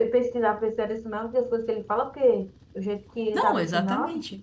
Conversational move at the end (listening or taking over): taking over